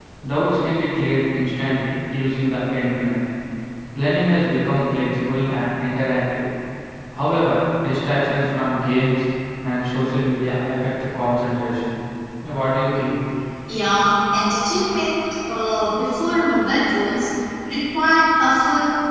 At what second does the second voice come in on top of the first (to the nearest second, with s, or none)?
none